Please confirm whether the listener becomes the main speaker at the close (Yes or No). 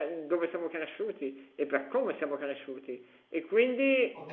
No